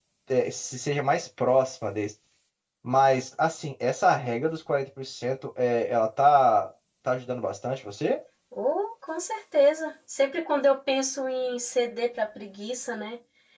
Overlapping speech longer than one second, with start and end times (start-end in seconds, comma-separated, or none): none